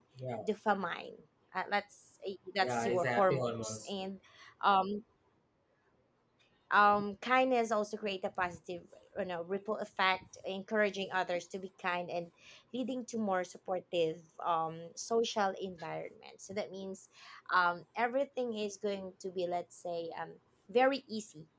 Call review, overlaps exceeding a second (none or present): present